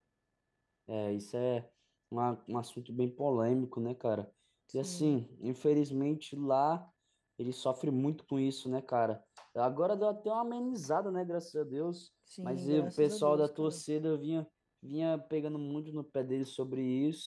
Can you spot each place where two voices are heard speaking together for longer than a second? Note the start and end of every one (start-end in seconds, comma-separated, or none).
12.4-13.8